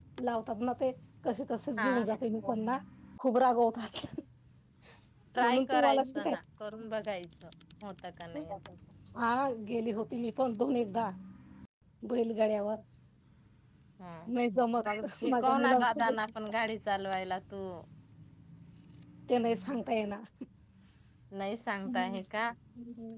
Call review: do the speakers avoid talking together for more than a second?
No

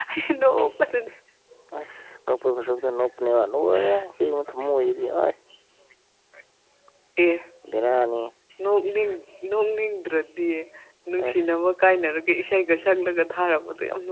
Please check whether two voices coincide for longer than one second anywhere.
No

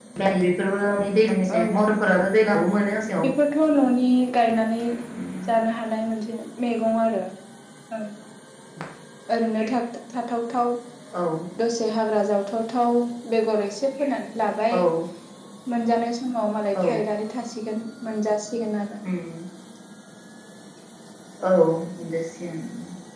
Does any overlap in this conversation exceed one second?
No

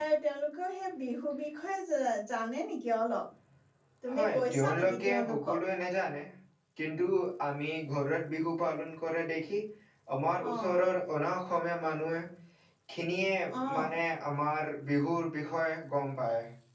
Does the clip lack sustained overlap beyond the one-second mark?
No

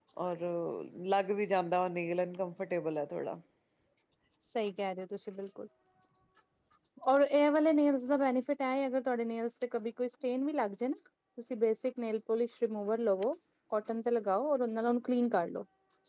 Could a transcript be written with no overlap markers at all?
Yes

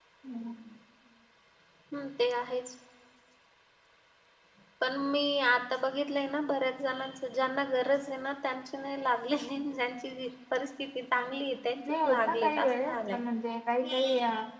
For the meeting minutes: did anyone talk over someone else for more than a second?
Yes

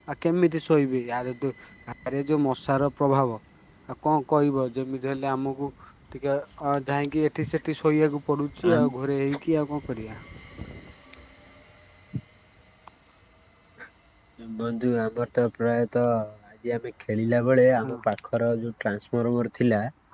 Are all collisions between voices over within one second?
Yes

